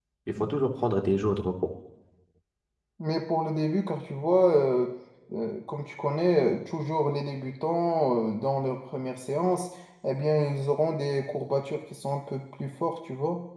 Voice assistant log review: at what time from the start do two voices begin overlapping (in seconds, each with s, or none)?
none